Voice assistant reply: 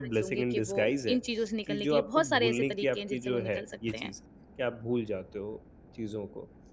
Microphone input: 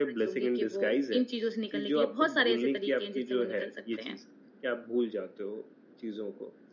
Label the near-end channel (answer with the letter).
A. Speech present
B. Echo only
B